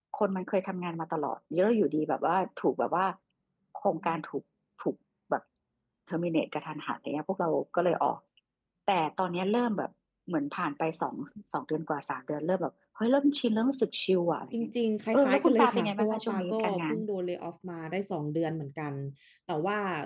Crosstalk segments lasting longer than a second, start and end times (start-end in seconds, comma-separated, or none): 15.1-17.0